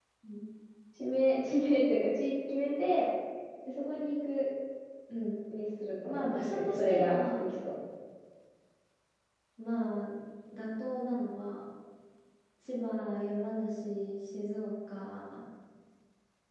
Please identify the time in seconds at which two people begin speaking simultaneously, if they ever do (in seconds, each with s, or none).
6.1 s